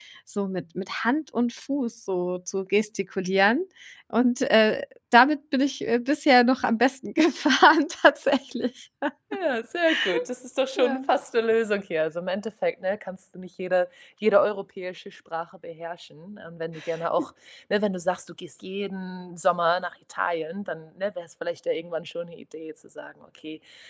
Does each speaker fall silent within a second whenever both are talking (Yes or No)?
Yes